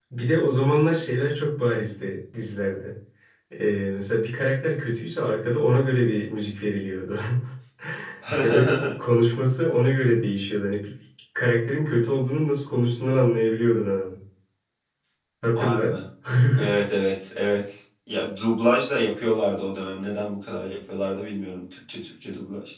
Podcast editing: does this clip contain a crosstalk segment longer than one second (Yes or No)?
No